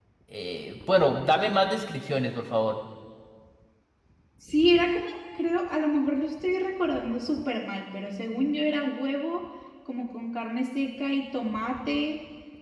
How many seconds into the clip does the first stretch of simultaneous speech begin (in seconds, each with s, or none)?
none